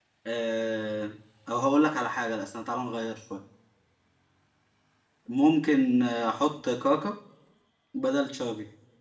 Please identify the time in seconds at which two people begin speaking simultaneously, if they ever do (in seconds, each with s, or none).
none